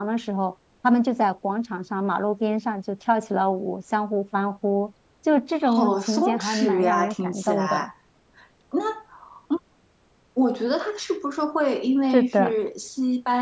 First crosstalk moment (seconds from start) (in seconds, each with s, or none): 5.6 s